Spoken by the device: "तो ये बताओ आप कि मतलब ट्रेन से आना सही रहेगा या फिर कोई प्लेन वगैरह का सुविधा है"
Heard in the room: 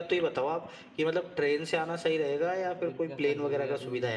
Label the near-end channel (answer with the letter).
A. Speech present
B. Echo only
A